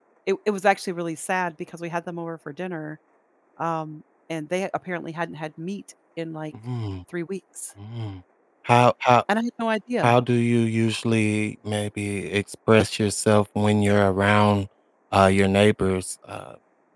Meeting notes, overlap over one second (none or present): none